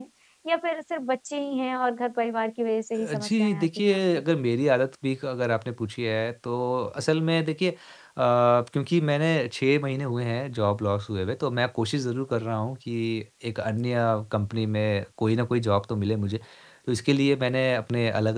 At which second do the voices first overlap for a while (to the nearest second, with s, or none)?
3 s